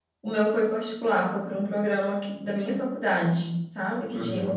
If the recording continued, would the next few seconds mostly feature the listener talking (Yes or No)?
Yes